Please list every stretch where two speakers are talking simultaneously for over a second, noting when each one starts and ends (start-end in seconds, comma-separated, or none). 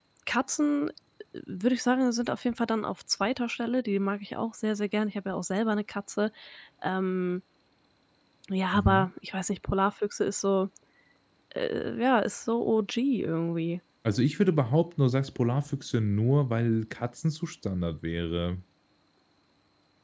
none